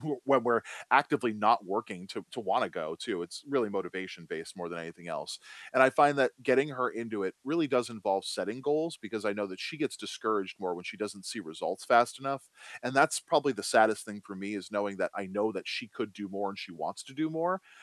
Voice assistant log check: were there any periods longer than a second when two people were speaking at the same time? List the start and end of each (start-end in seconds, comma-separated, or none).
none